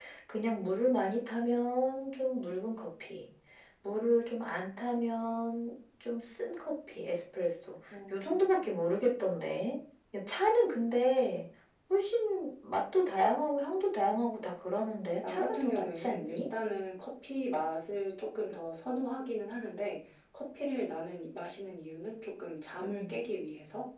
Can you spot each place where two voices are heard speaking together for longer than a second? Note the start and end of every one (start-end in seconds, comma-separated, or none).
15.2-16.4